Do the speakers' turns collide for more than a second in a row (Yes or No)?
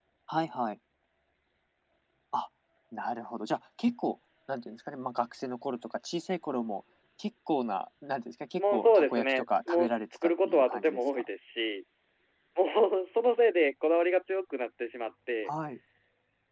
Yes